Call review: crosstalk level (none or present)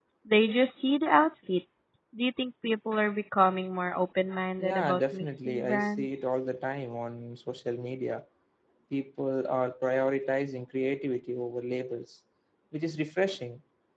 present